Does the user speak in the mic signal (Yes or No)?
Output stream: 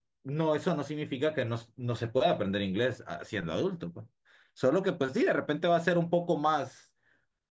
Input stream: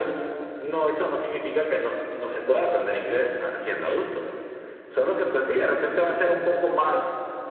No